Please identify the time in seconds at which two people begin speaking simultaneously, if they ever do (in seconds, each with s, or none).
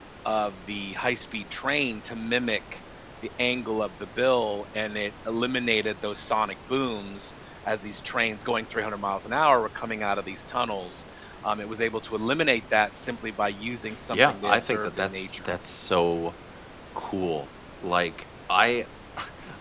14.1 s